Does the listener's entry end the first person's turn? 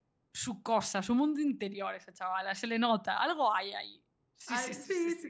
Yes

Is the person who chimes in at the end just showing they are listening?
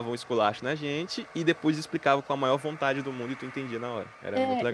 No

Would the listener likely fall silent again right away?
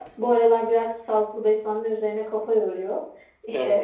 Yes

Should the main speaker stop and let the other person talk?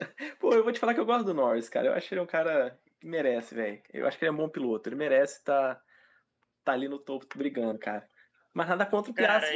Yes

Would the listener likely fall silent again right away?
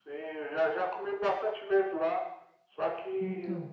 Yes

